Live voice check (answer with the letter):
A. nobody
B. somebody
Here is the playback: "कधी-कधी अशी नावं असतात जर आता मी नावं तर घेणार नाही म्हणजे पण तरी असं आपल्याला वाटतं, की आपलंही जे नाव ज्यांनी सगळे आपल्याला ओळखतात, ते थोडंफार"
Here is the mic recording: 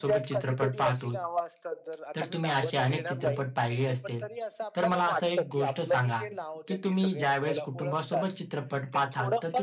B